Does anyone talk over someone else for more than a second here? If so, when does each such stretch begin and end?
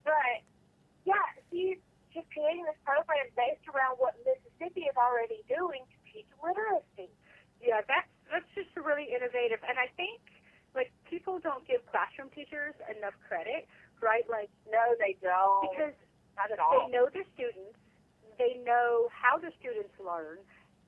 none

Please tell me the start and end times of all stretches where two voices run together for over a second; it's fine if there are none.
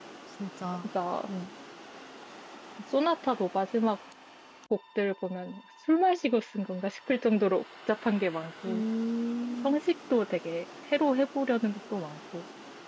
none

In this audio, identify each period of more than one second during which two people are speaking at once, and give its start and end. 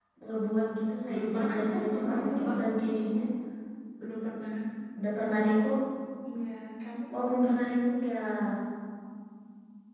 1.1-2.5

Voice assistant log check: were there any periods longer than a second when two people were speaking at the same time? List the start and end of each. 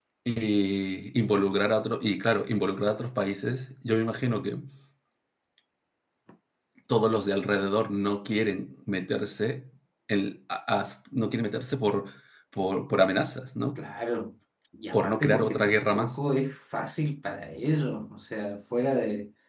14.9-16.2

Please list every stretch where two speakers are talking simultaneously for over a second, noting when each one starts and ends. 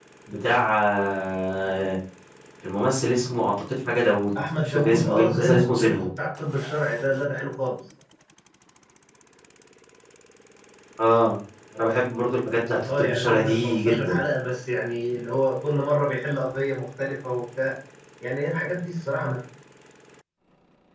4.6-5.9, 12.9-14.2

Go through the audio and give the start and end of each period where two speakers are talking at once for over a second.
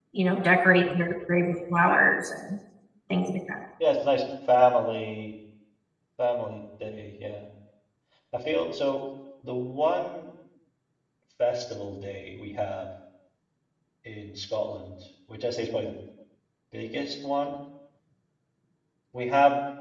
none

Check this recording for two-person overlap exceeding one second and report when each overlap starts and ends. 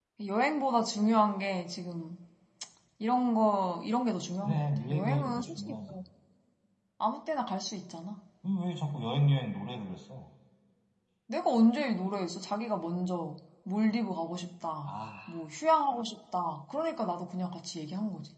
4.4-6.0

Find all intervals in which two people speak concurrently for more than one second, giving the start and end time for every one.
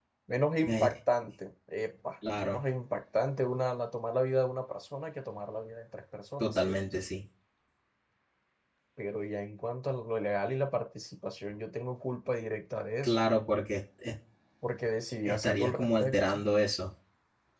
15.2-16.5

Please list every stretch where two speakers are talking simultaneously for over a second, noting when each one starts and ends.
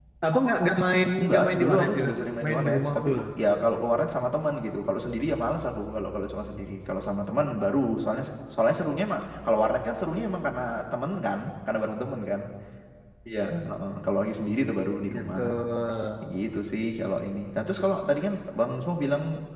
1.2-3.2

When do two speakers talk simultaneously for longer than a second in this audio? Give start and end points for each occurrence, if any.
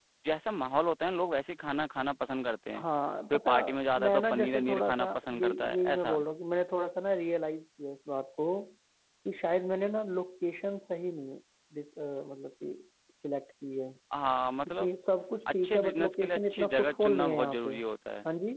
4.0-6.2, 15.6-17.7

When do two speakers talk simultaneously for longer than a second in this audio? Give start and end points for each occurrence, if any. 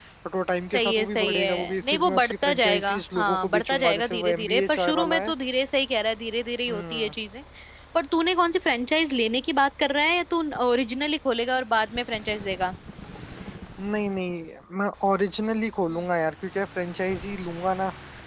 0.8-5.3

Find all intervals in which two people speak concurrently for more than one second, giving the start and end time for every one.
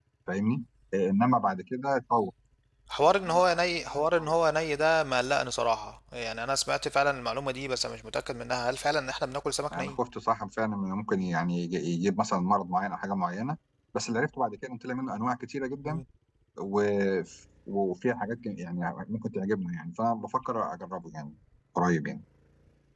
none

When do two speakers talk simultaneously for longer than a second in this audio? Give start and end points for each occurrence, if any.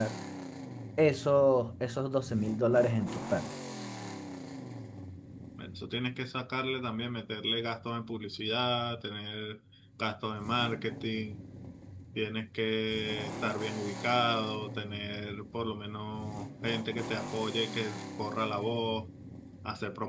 none

